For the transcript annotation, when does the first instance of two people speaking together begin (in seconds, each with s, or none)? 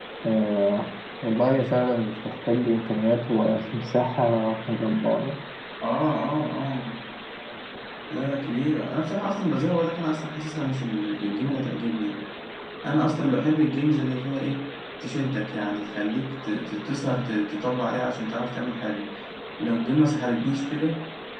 none